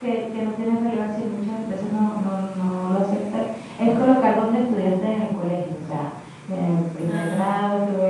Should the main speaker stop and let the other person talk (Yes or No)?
No